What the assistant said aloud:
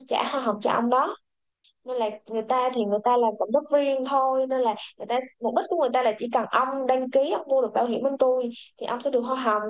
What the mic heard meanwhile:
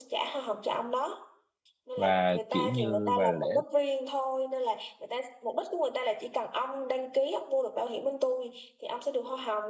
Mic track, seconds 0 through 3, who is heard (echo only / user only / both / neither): both